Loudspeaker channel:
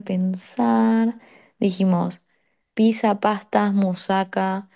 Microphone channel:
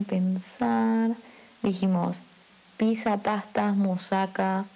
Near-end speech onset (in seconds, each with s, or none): none